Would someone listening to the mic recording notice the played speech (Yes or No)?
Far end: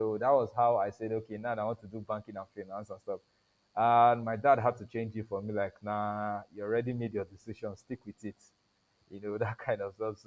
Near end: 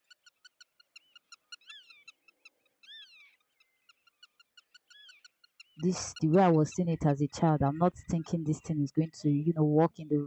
No